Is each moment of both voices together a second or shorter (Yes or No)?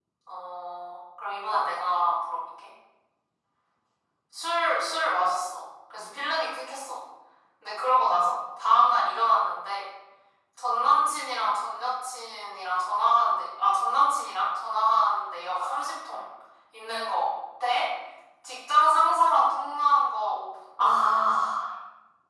Yes